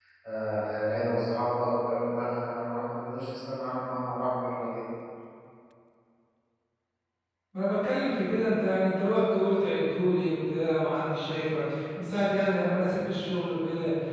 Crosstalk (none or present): none